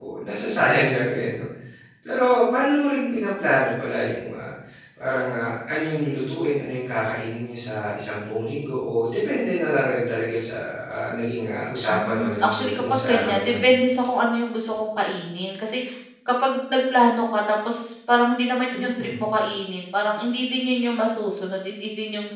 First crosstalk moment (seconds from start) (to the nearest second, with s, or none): 12 s